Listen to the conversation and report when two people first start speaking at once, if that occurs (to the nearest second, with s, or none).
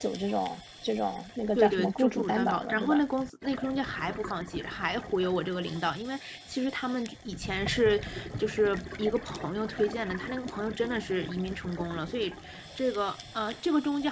2 s